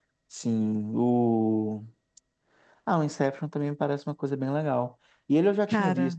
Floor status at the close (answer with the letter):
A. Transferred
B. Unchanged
B